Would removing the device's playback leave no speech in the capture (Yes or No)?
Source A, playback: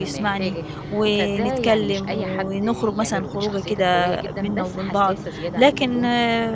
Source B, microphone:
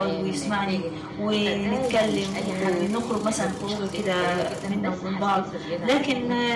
No